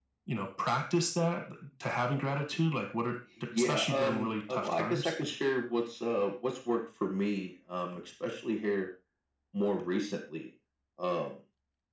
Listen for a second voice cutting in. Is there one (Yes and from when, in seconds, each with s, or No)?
Yes, from 3.6 s